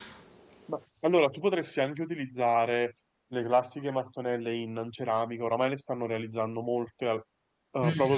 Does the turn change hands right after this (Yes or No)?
Yes